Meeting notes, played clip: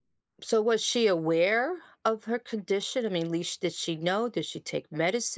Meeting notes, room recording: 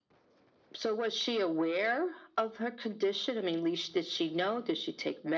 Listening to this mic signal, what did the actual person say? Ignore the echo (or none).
none